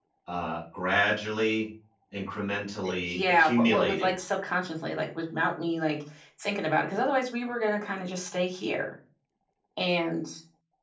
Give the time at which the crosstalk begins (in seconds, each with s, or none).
2.8 s